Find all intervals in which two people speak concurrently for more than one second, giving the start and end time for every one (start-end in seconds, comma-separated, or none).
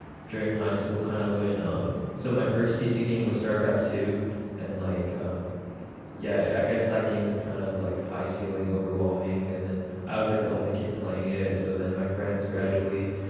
none